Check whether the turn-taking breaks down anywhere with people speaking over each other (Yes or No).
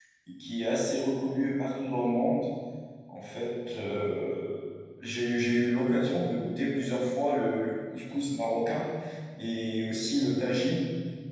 No